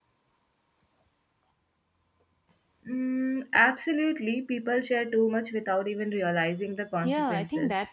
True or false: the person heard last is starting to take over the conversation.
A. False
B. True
B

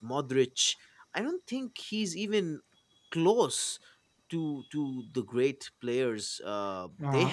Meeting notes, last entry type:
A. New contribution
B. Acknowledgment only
A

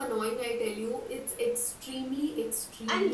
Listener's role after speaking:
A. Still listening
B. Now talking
B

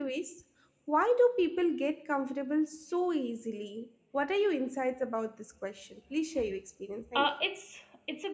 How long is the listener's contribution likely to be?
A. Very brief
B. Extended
B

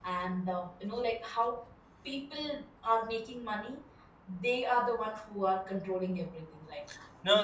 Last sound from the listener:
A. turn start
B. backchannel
A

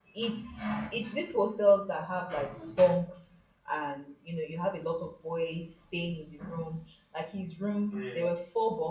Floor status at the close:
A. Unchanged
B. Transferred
A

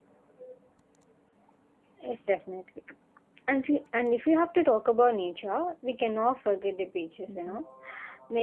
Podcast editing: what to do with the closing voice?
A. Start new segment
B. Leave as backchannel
B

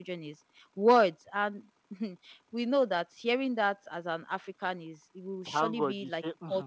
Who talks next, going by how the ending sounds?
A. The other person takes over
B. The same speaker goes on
A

